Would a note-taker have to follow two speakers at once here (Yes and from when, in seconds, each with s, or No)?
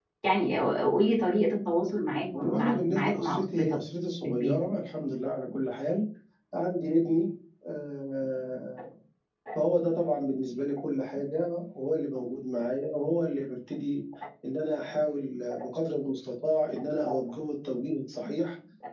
Yes, from 2.4 s